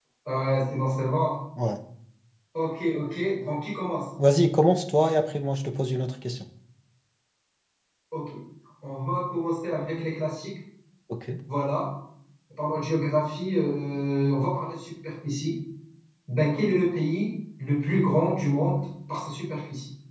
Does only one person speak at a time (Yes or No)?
Yes